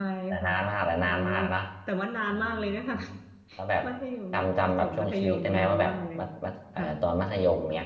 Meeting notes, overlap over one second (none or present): present